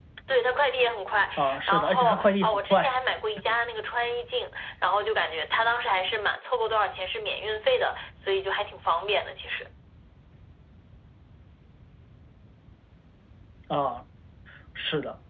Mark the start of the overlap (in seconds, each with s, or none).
1.4 s